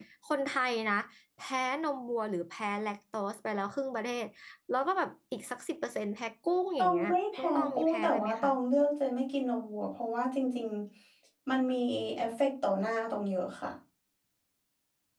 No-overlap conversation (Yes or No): No